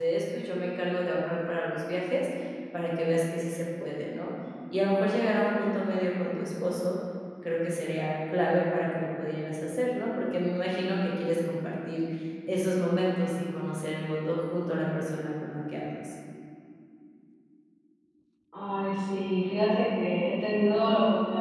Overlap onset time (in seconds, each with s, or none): none